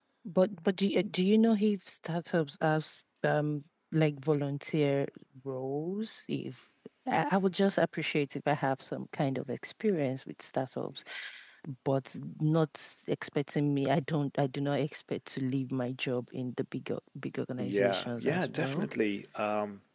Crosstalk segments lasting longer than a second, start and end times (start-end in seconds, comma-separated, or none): 17.6-18.9